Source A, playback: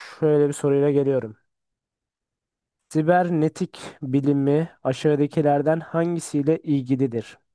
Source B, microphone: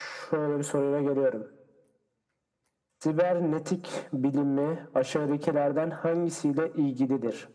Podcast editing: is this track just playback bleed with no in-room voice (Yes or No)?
Yes